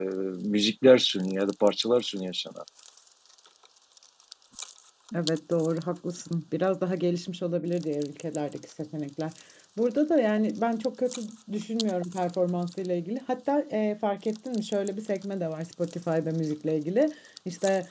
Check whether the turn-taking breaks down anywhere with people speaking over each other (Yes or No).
No